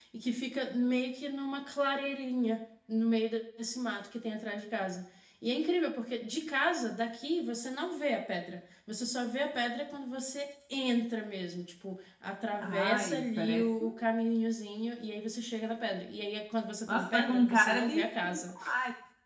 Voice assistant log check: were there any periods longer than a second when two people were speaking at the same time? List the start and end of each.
12.6-13.8, 16.9-18.5

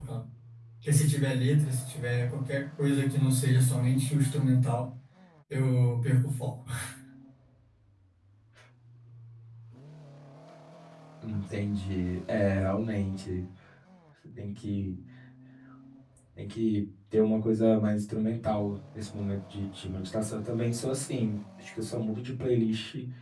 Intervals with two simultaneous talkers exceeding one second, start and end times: none

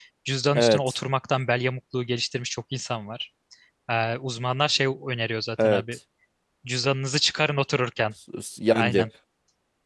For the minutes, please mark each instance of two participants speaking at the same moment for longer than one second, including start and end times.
none

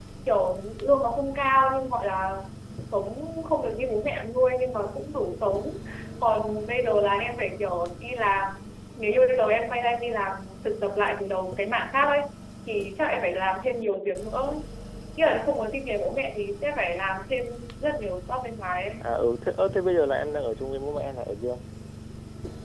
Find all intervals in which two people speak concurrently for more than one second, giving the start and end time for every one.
none

